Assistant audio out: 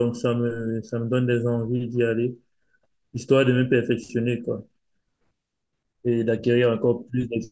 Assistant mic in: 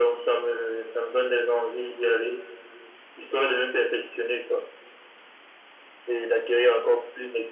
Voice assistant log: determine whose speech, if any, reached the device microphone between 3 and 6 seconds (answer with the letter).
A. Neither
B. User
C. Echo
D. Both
C